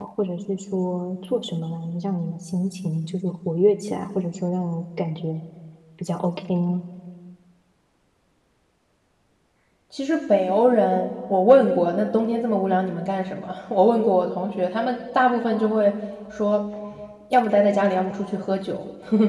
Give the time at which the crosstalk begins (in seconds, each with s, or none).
none